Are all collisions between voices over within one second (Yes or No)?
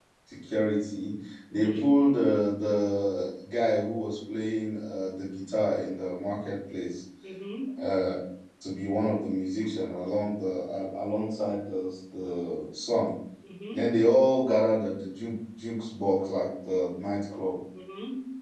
Yes